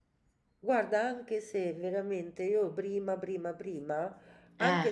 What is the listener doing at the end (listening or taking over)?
listening